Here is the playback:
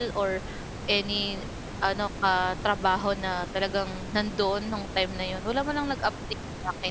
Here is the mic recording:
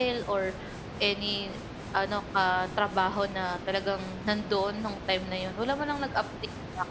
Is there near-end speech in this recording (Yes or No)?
No